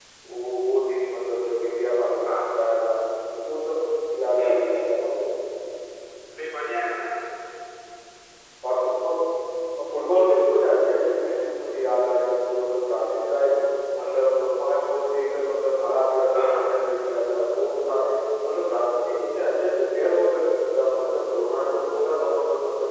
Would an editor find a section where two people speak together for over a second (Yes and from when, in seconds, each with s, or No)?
No